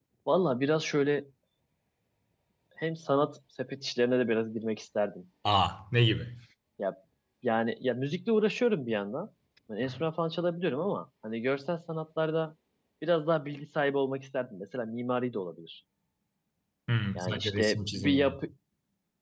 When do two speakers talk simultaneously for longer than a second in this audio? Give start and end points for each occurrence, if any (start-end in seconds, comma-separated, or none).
17.2-18.4